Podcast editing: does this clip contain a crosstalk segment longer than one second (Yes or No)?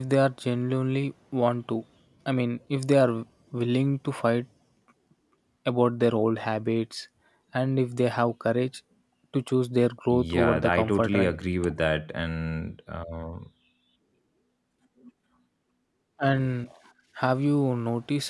Yes